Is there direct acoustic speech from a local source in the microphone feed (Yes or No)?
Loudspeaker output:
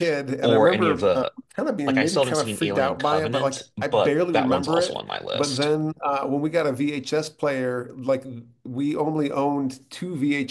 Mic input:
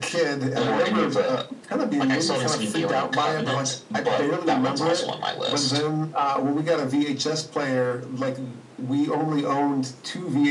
No